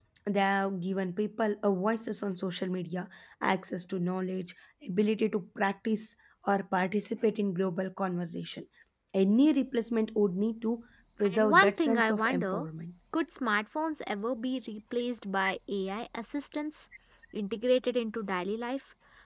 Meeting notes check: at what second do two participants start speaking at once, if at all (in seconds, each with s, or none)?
11.2 s